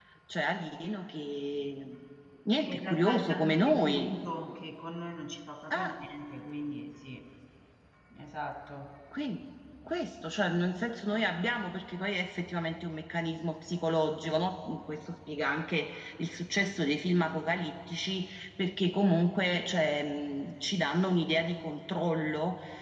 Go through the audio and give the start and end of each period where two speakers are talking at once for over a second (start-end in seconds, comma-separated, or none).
2.6-4.2